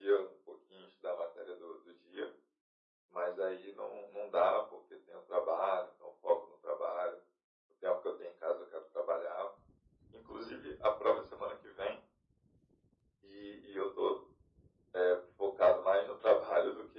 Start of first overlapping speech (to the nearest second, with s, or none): none